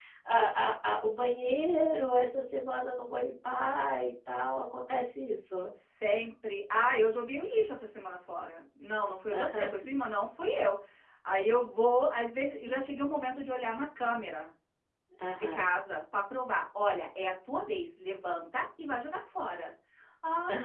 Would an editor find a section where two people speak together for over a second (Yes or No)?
No